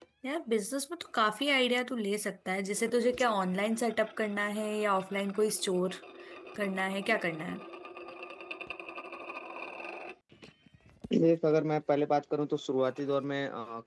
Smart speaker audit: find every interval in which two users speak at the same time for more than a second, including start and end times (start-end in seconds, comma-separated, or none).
none